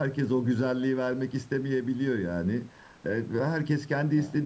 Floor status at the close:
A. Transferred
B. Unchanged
B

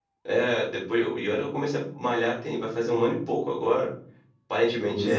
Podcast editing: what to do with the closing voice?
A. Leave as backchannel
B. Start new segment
B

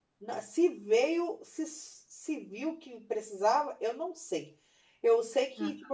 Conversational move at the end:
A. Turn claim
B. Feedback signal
B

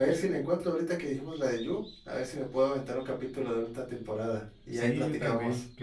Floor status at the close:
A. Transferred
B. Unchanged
A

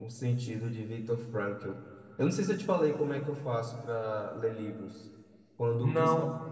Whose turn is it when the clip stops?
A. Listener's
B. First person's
B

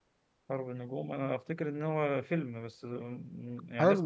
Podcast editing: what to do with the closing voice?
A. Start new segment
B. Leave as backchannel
A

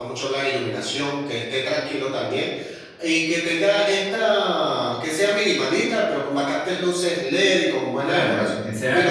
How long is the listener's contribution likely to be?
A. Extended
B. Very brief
A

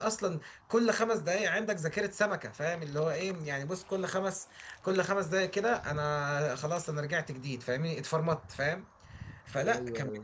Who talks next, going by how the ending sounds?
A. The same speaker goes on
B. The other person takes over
A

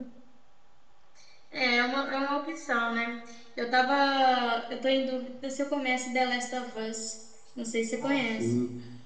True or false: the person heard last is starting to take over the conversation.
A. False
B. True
B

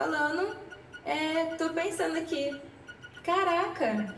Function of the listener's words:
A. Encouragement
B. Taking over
A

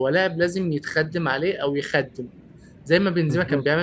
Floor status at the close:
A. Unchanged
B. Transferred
A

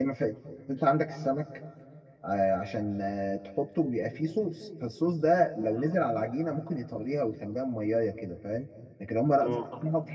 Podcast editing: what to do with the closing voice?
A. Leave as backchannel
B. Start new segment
A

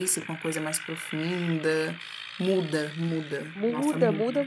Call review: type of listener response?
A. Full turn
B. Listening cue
A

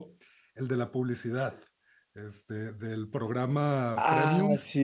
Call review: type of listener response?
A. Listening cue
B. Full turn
B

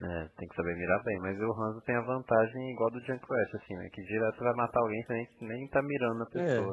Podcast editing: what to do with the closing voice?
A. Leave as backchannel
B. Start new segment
B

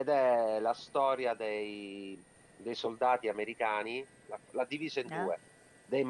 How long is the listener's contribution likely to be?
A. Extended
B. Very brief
B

